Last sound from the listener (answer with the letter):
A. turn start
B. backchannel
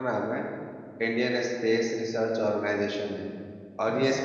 B